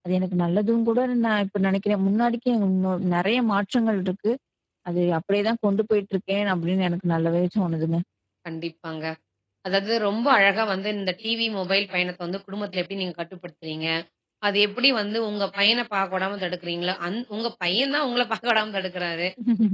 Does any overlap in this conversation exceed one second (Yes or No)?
No